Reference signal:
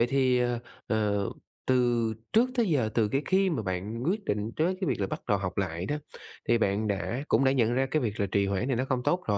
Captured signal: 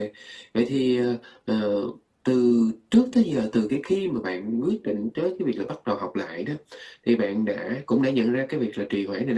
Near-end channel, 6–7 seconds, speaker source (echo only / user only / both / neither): echo only